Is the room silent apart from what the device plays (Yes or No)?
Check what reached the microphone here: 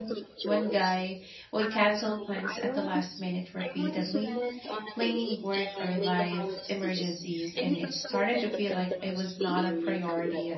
No